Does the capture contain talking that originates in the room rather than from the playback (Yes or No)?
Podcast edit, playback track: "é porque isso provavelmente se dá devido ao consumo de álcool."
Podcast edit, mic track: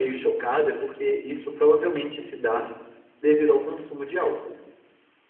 No